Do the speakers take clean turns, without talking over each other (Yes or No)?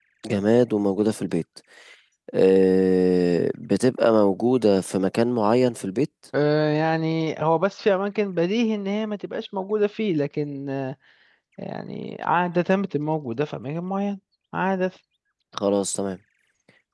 Yes